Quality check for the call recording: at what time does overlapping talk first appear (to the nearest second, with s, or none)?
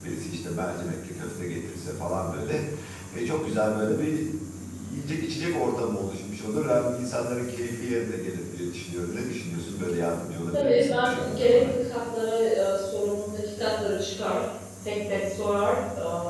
11 s